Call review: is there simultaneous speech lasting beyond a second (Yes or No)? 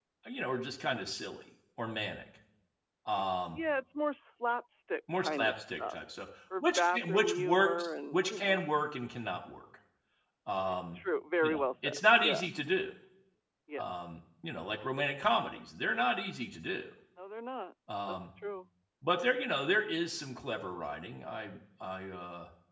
Yes